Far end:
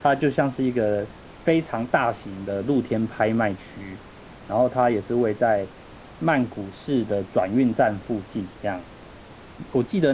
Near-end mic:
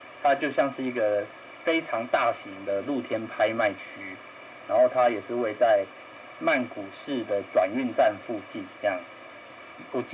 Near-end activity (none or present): none